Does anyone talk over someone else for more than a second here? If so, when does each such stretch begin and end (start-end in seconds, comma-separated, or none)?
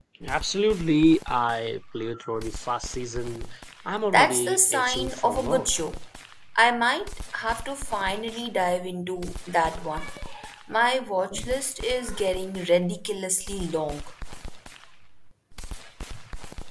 4.1-5.7